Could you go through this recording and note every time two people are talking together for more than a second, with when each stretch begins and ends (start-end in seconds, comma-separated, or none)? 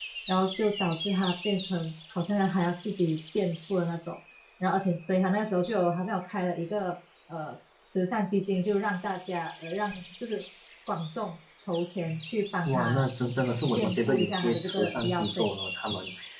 13.8-15.5